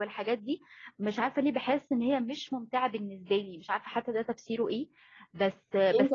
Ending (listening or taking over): taking over